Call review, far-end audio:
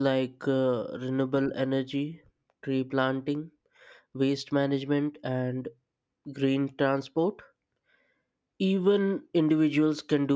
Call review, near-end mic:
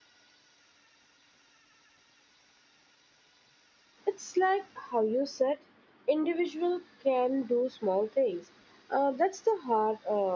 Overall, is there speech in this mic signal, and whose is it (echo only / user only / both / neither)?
user only